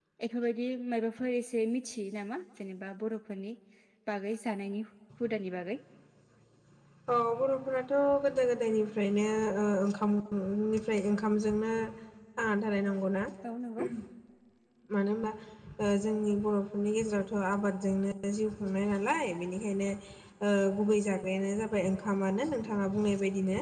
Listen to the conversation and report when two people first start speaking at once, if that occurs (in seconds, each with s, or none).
none